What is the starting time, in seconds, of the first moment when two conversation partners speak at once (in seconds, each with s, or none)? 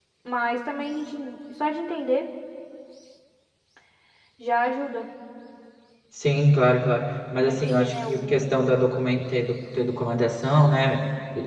7.5 s